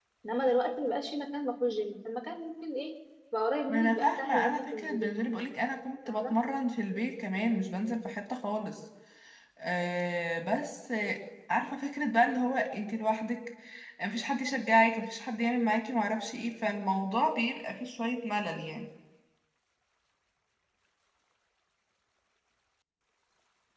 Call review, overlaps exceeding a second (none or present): present